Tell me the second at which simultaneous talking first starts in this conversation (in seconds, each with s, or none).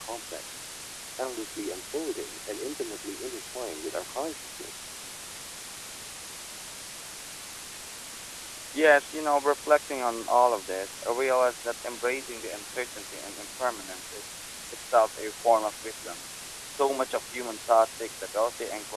none